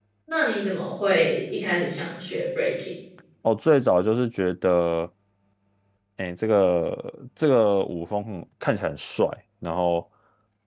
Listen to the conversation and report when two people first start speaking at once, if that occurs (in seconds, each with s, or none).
none